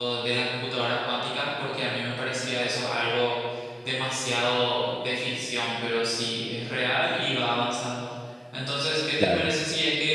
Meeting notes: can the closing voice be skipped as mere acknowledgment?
Yes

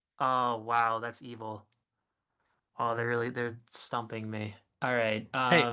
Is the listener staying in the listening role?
No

